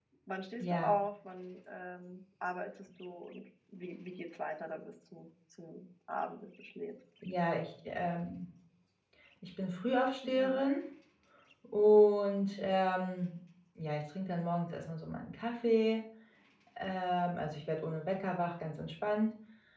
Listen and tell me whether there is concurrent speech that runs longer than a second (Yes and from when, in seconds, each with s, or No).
No